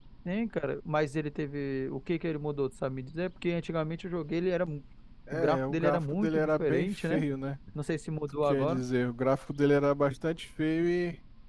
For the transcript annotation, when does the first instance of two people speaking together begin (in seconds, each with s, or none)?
5.3 s